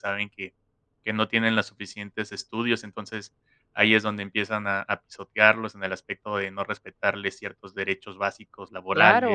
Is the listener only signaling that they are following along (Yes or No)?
No